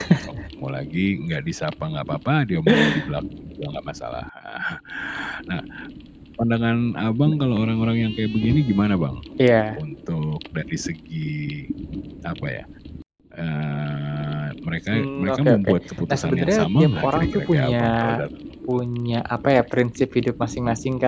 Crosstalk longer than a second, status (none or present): present